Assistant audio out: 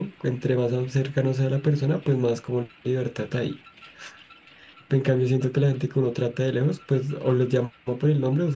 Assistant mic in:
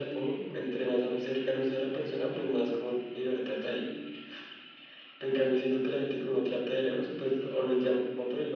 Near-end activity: none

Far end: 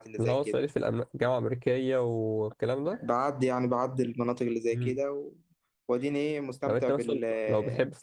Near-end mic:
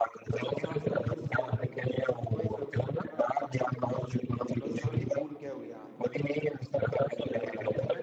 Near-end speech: present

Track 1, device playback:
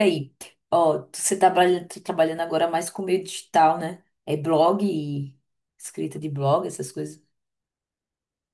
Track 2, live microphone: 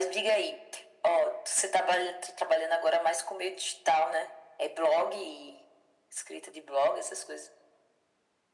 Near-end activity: none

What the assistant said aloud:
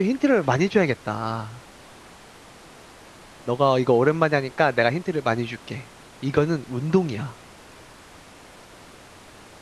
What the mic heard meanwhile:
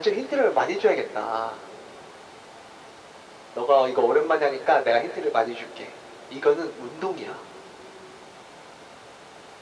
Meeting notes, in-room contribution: none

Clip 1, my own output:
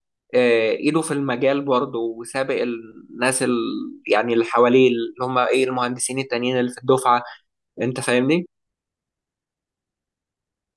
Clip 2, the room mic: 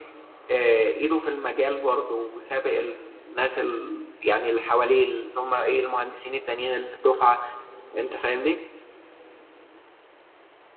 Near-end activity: none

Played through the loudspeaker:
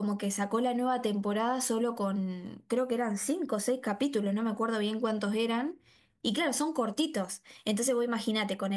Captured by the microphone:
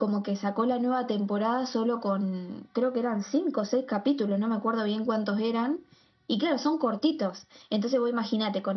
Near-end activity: none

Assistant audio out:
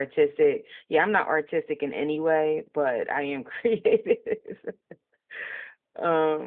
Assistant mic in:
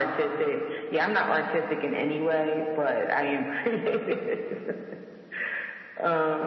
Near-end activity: none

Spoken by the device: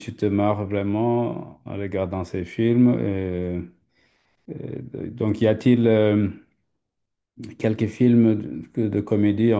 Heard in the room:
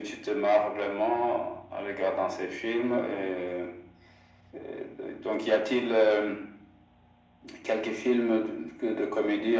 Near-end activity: none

